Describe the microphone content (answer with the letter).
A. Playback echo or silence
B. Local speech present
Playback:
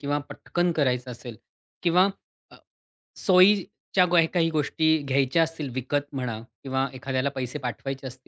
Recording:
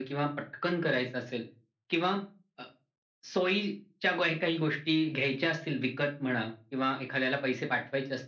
A